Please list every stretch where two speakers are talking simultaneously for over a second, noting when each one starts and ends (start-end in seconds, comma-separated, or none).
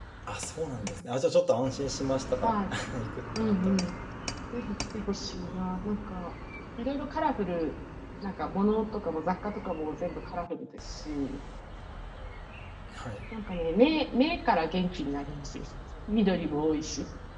none